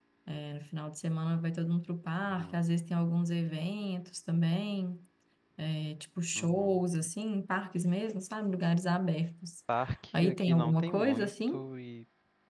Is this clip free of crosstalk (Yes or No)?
No